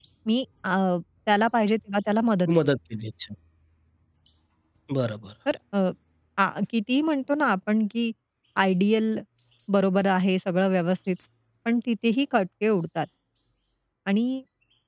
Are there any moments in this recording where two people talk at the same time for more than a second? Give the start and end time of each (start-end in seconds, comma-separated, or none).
none